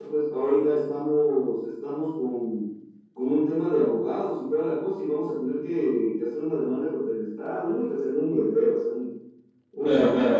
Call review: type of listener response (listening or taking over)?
taking over